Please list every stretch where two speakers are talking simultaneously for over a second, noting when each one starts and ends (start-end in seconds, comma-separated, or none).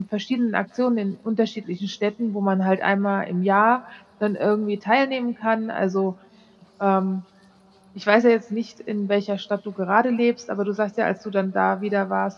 none